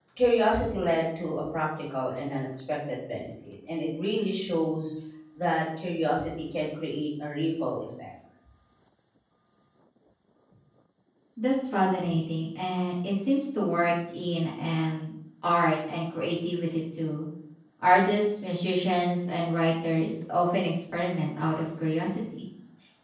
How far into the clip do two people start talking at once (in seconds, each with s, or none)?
none